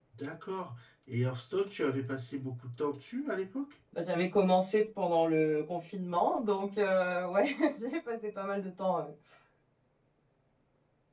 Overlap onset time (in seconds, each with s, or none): none